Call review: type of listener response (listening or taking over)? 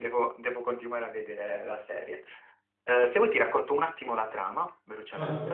taking over